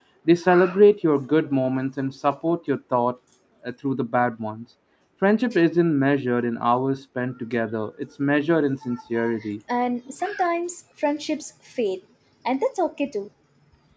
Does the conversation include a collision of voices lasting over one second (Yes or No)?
No